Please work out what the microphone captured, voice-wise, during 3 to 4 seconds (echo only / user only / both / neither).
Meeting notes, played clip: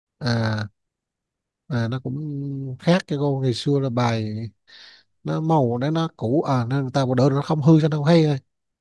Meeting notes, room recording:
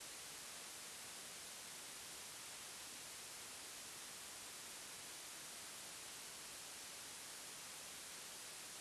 neither